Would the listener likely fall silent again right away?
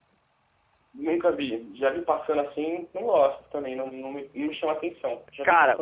No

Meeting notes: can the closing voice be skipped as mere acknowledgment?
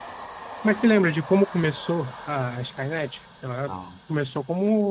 Yes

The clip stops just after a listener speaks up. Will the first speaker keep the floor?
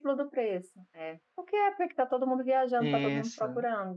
No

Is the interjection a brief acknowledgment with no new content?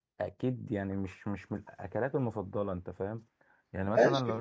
No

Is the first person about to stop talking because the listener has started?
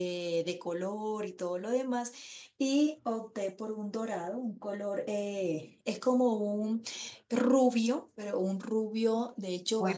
Yes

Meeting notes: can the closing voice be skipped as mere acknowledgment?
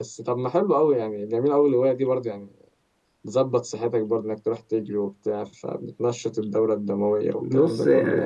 No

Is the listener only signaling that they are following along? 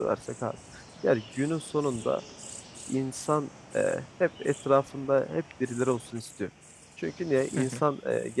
Yes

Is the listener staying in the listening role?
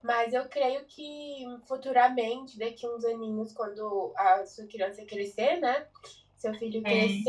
Yes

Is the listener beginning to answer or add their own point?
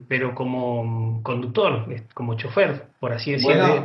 Yes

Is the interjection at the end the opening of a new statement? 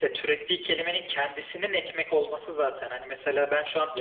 No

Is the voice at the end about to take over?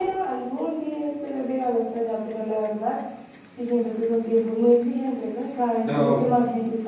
No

